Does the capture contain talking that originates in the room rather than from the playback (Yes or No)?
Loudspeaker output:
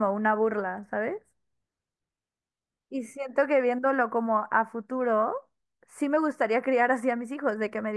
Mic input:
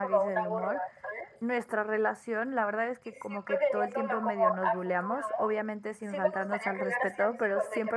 Yes